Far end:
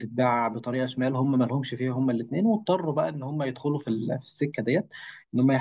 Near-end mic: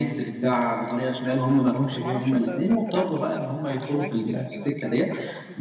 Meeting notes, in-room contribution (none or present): present